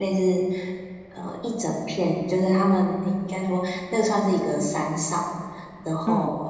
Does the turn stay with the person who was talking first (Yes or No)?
Yes